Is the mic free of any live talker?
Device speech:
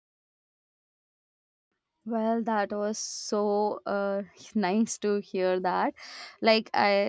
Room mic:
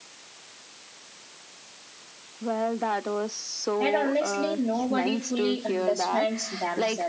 No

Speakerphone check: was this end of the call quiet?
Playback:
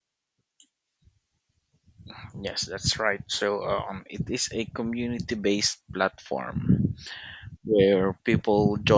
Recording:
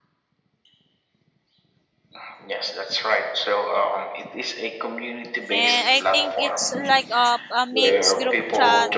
No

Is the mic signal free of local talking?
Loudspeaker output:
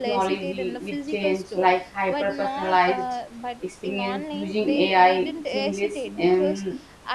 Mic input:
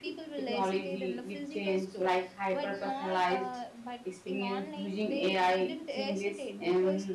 Yes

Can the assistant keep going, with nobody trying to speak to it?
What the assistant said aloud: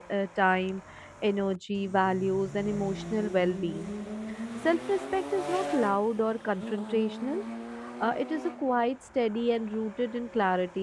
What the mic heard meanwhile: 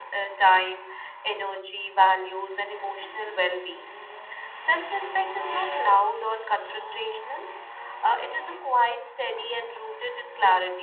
Yes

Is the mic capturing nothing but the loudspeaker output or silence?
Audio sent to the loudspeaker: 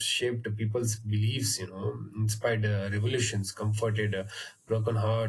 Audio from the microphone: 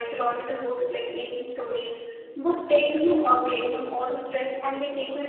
No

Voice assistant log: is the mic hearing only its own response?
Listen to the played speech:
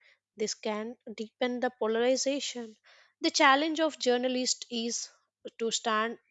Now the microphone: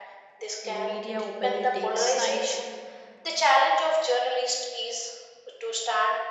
No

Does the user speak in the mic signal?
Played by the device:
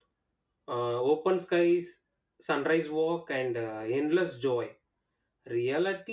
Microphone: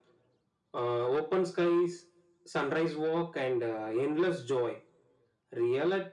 No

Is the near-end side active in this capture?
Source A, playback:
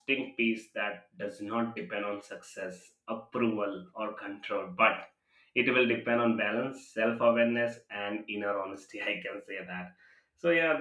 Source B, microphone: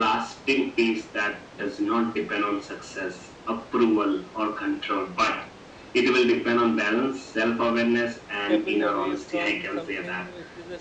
Yes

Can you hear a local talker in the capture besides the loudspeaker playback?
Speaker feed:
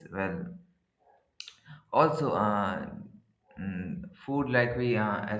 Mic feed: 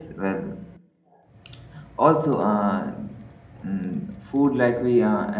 No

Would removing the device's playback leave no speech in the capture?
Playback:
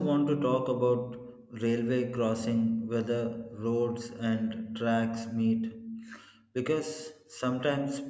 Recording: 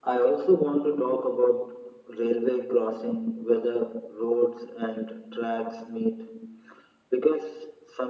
Yes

